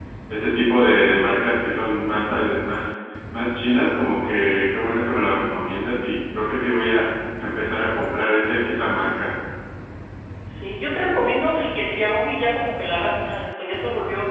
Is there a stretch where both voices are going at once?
No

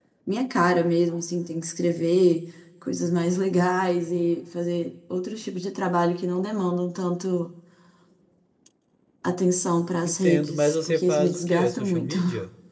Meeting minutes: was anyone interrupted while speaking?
Yes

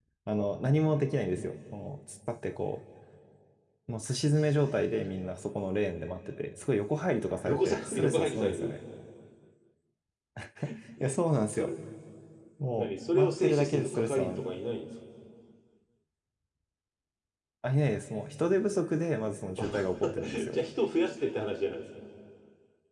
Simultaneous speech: Yes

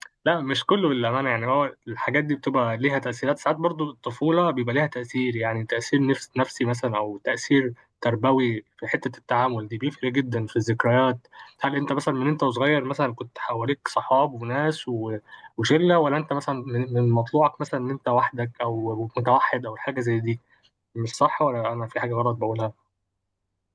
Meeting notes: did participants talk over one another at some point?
No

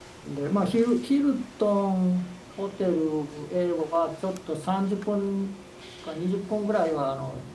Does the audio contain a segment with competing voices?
No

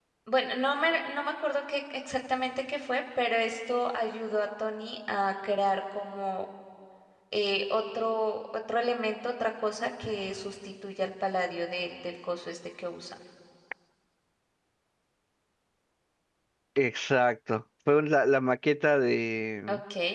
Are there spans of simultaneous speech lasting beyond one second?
No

